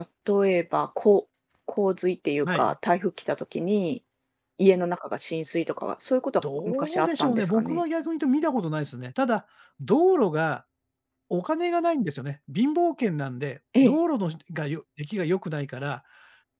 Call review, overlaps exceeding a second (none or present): present